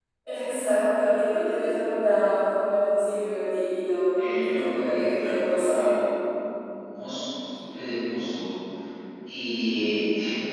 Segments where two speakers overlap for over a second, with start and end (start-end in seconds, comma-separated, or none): 4.2-5.9